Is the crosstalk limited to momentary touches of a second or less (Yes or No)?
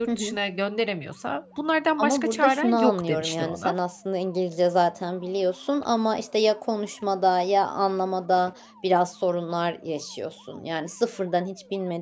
No